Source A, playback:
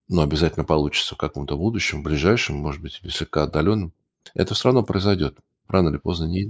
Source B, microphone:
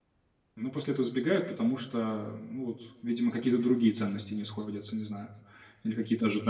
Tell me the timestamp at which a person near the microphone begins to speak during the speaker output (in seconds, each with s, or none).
0.5 s